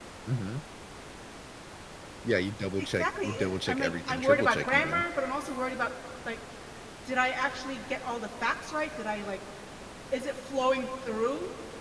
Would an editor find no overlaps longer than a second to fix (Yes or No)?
No